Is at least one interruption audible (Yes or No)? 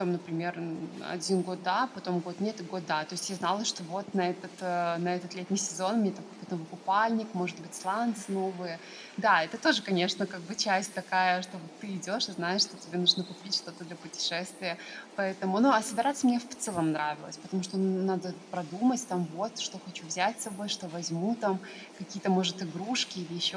No